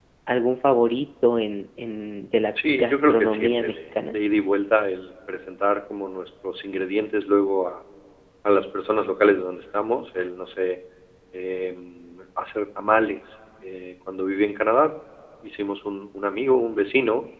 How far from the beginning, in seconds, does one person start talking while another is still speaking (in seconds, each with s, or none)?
2.6 s